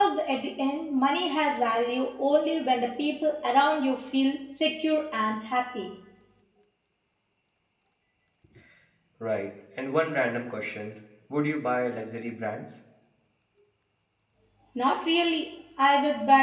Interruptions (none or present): none